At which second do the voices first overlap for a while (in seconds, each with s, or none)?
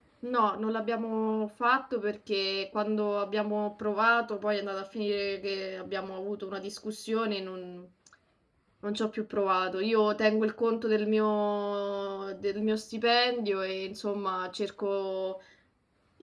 none